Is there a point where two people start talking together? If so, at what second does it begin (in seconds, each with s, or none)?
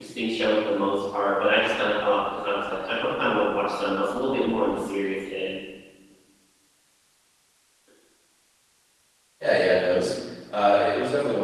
none